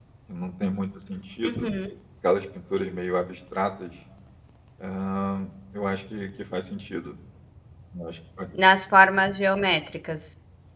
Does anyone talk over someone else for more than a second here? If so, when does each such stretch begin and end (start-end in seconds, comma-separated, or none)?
none